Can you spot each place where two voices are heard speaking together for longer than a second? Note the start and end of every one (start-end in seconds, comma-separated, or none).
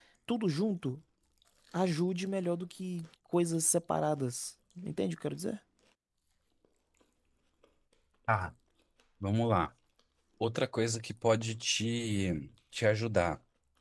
none